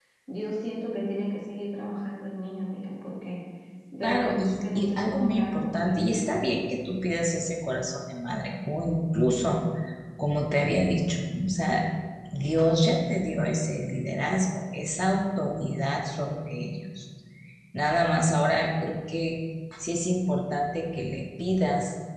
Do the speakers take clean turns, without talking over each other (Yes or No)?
No